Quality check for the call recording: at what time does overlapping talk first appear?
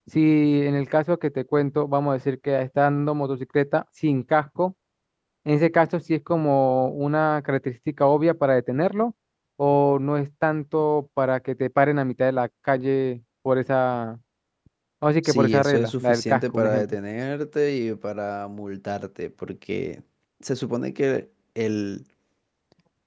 15.2 s

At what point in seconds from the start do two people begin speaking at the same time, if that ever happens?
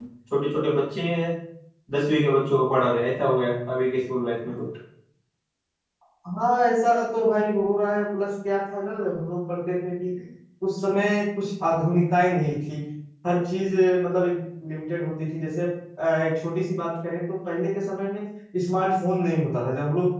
none

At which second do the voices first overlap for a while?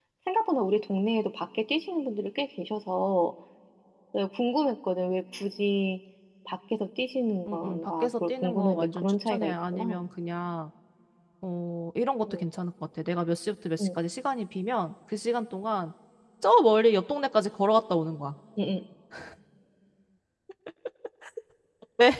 7.5 s

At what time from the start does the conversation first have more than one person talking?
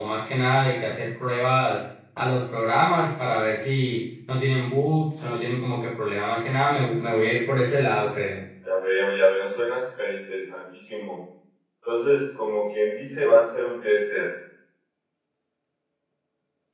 none

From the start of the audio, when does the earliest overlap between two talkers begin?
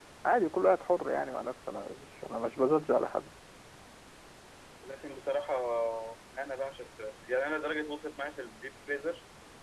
none

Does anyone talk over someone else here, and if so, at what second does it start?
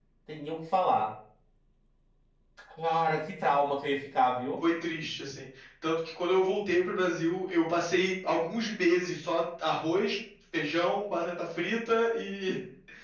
none

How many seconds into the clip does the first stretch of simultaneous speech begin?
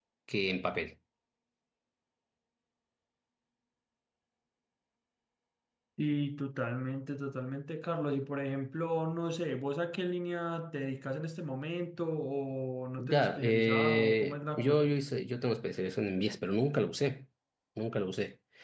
13.0 s

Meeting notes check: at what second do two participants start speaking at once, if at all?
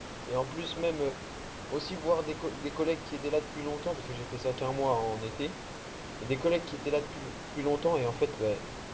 none

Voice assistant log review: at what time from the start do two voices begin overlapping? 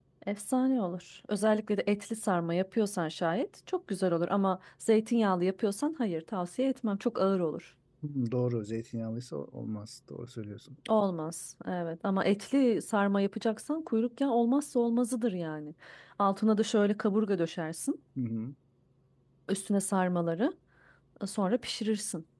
none

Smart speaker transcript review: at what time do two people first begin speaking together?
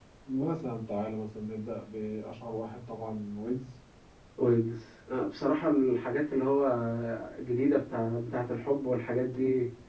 none

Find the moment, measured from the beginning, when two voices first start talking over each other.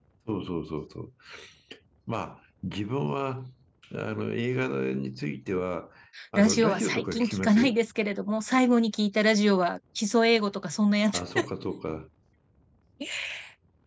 6.3 s

